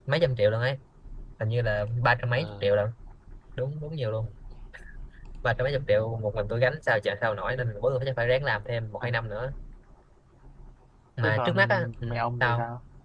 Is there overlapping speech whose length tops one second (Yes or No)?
Yes